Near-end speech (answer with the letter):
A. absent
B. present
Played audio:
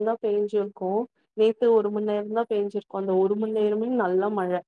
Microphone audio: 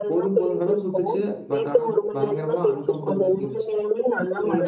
B